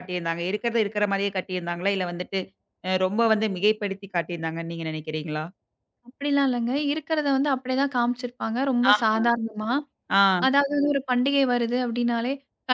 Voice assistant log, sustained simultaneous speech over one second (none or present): none